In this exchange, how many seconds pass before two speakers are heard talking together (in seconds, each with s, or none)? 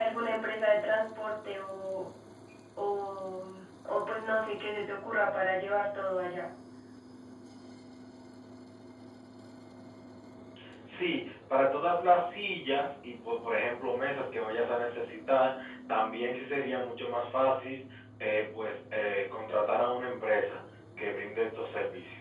none